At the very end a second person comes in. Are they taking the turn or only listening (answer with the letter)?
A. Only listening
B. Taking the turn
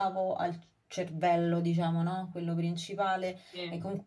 A